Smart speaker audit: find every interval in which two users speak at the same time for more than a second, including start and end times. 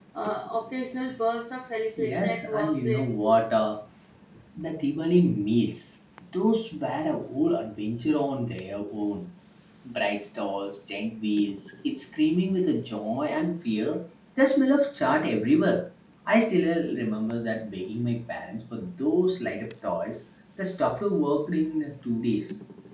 2.0-3.4

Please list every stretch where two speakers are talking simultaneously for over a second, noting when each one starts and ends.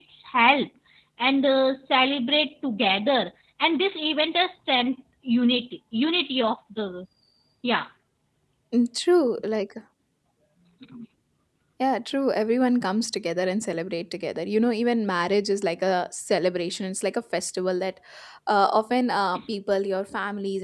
none

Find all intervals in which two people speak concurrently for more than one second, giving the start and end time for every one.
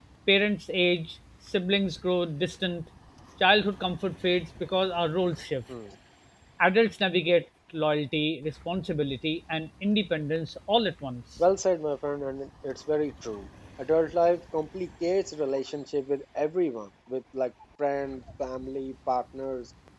none

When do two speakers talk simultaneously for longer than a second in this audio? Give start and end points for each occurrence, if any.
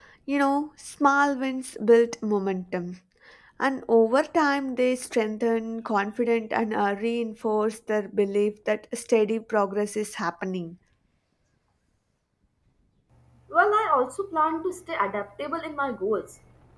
none

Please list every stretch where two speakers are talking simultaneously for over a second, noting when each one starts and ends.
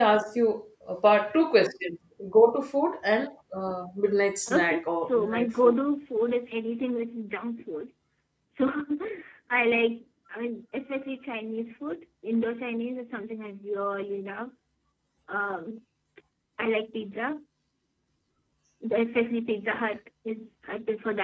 4.5-5.8

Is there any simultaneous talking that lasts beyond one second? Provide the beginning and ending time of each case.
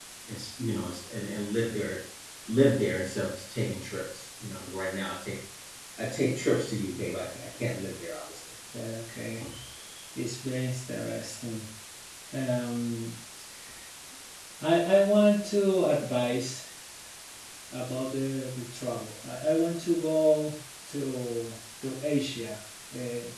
none

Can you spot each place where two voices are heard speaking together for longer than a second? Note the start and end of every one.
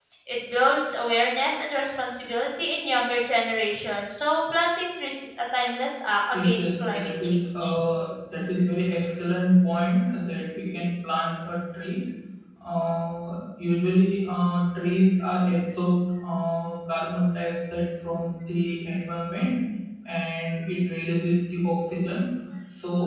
6.3-7.8

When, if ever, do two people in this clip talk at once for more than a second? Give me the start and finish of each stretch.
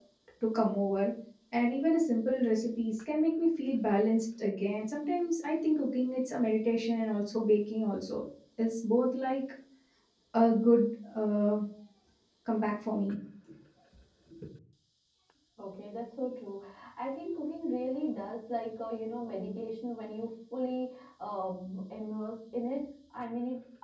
none

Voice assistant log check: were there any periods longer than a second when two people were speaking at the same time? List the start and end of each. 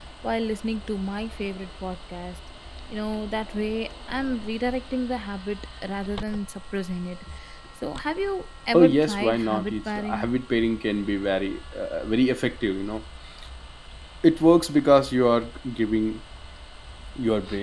8.7-10.3

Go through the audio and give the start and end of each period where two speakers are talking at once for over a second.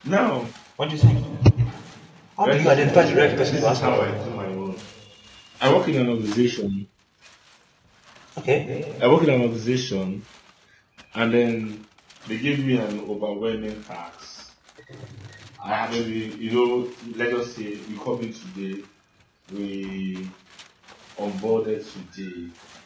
2.4-4.1

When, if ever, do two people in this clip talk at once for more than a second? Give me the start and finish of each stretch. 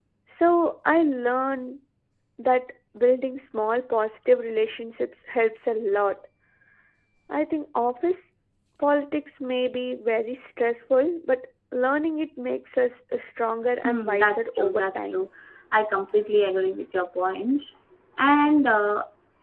13.8-15.3

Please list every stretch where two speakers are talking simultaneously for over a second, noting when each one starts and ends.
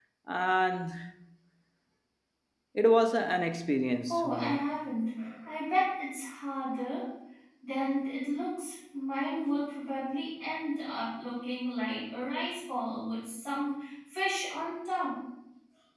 none

